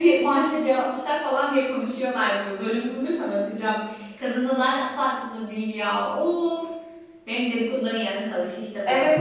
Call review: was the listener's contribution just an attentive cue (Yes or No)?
No